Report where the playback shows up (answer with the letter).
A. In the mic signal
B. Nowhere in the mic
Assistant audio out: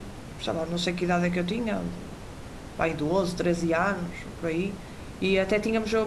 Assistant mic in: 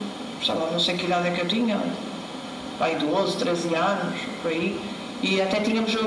A